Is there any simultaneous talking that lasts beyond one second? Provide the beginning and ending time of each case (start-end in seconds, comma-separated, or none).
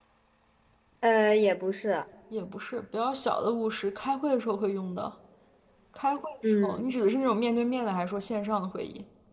none